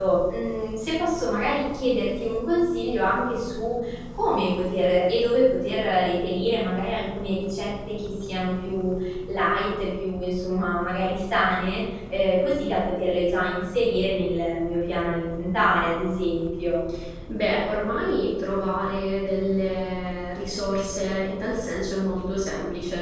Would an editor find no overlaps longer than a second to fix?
Yes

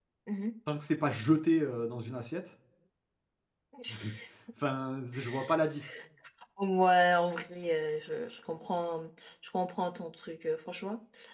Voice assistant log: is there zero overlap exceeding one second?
Yes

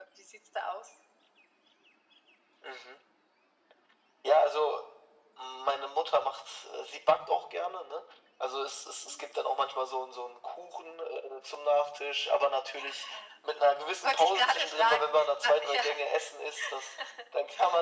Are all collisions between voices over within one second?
No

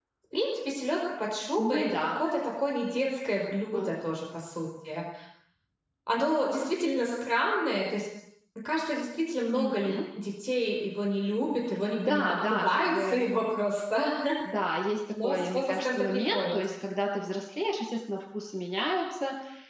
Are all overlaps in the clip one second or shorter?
No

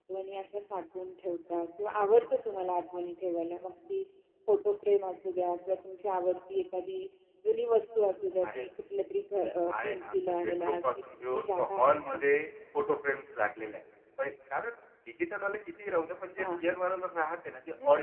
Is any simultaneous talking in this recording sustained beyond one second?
Yes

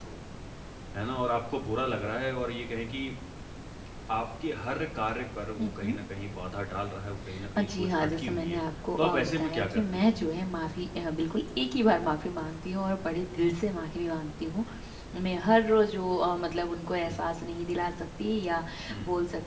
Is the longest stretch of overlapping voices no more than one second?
No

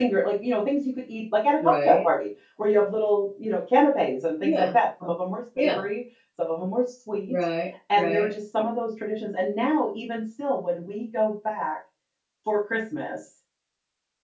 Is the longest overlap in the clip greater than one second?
No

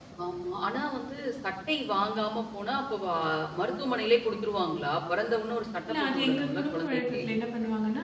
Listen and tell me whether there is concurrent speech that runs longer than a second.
Yes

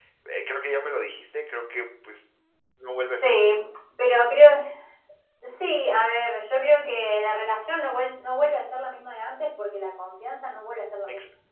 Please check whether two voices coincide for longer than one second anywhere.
No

